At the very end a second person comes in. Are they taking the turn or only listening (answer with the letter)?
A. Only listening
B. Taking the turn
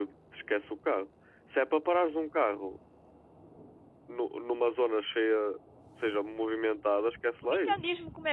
B